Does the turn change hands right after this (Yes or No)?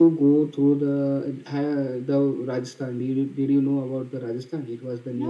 Yes